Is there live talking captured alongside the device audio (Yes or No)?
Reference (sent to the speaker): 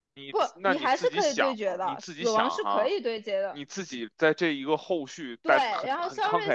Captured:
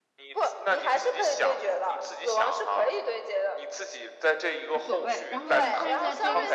Yes